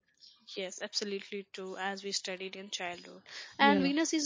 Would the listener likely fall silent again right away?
Yes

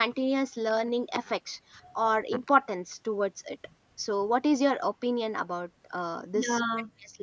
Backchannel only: No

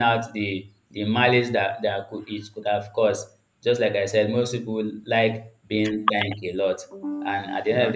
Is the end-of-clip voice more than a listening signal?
No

